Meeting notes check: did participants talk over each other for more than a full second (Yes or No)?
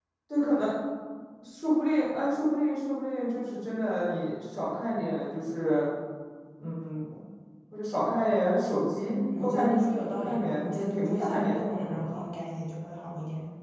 Yes